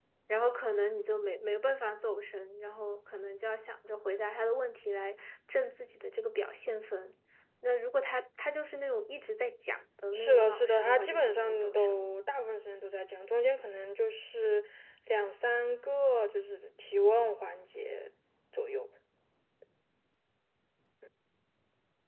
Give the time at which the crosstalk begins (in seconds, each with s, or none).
10.1 s